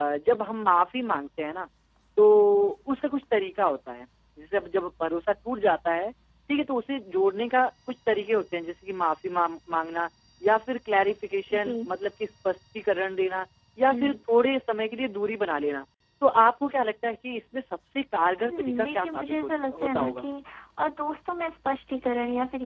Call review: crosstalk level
present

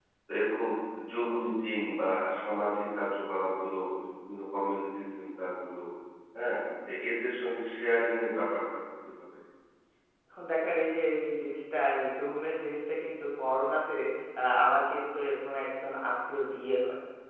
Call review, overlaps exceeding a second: none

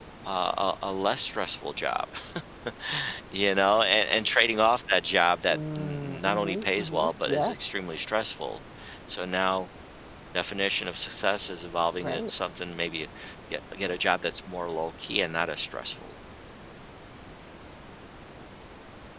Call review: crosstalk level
present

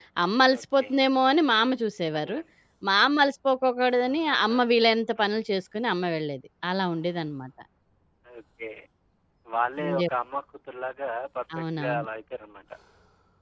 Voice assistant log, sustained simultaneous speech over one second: none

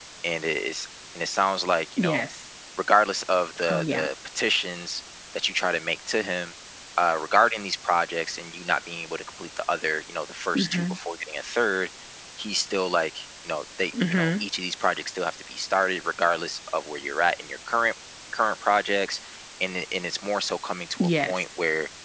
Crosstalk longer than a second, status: none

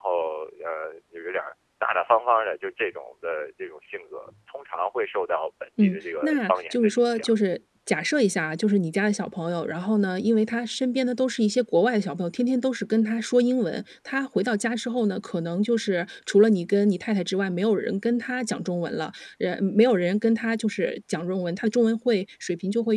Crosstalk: present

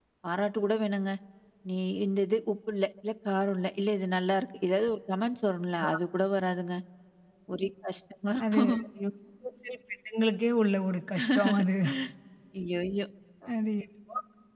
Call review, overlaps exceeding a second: none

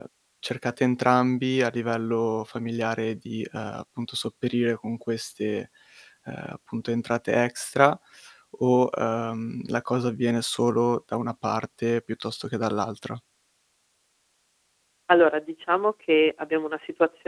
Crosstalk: none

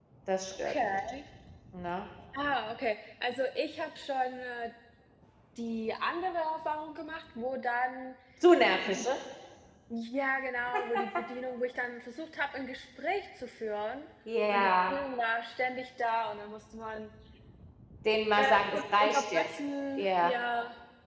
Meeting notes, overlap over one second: present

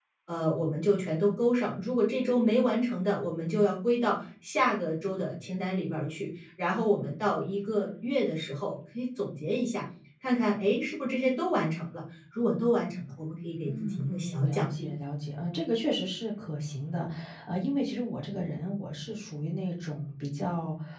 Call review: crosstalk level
present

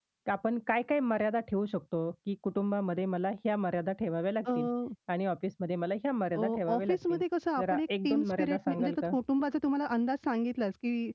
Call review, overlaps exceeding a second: present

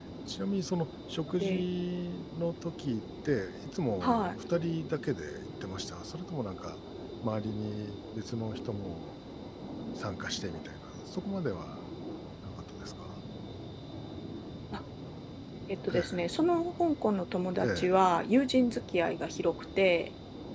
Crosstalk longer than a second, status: none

